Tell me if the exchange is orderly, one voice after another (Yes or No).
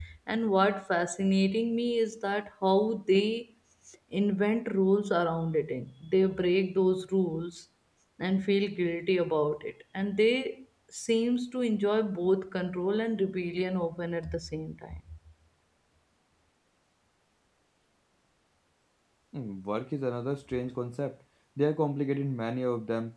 Yes